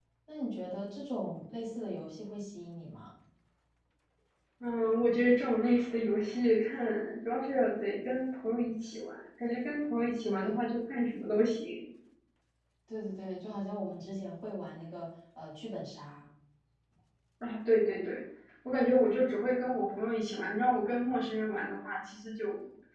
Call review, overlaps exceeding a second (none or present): none